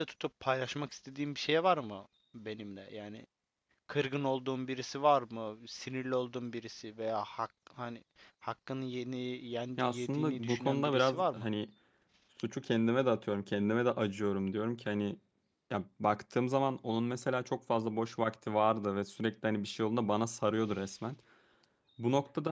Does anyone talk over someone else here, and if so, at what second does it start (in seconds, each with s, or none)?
9.8 s